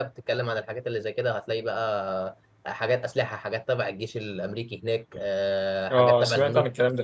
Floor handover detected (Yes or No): Yes